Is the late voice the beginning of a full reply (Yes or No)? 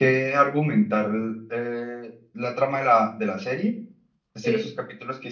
No